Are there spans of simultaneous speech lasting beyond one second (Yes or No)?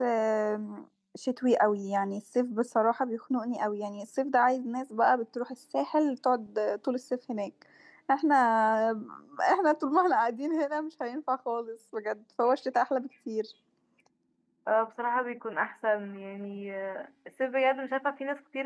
No